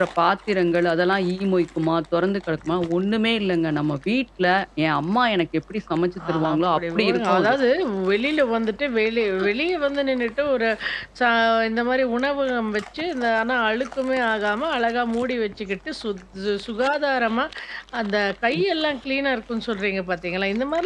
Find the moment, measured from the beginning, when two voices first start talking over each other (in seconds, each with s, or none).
6.2 s